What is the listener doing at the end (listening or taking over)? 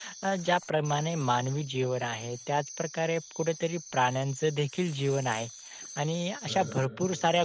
listening